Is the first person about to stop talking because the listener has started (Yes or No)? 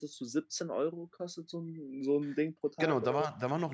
Yes